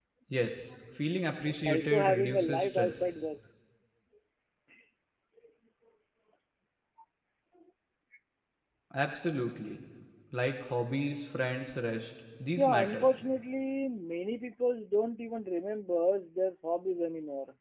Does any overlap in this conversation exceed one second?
Yes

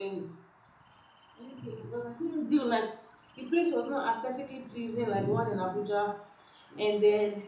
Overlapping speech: No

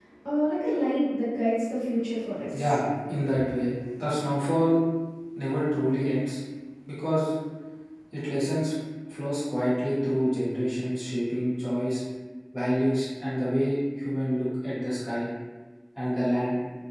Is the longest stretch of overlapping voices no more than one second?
Yes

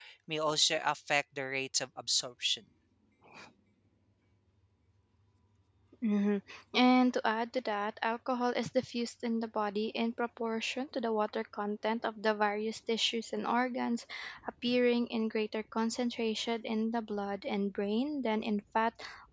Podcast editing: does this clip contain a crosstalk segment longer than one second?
No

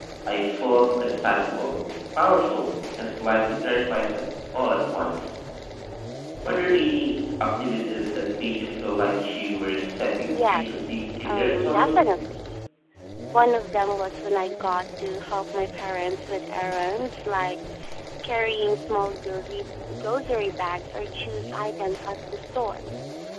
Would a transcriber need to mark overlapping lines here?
Yes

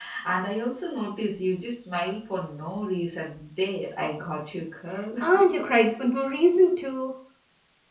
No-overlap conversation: Yes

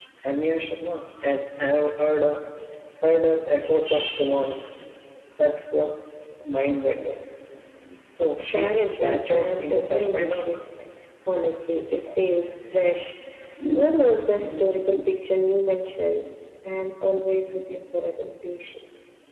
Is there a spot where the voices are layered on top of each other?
Yes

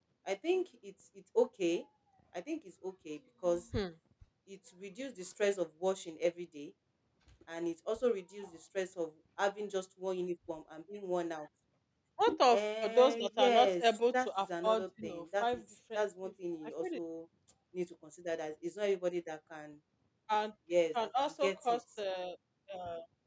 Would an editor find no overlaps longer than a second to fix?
No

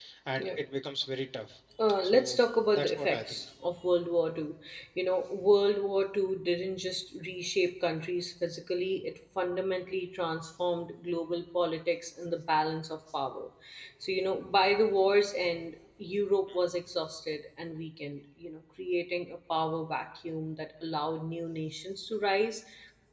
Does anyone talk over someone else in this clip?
Yes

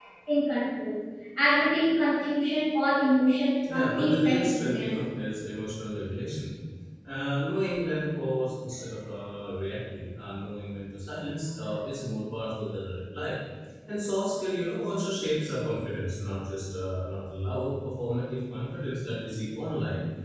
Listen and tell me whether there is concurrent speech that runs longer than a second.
Yes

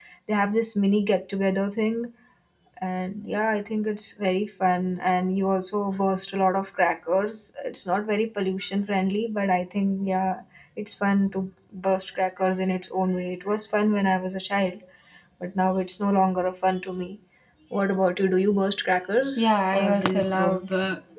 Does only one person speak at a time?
No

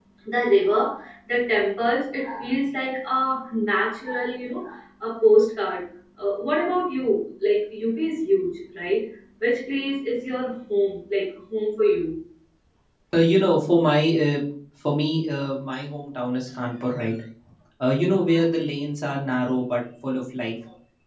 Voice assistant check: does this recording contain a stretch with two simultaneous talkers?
No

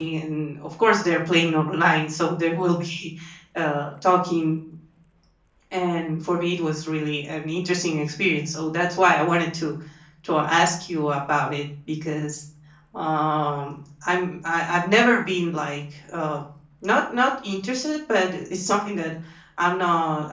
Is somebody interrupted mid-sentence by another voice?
No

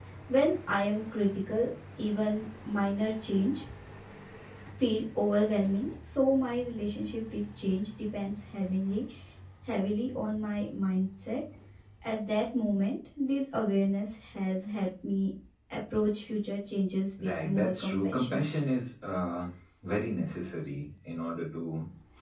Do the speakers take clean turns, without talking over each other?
No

